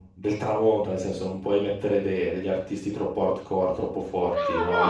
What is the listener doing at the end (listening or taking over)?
taking over